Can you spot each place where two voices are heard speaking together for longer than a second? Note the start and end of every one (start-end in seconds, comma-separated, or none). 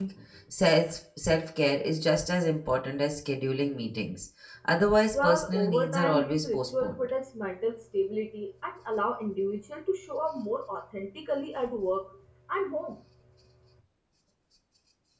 5.1-7.0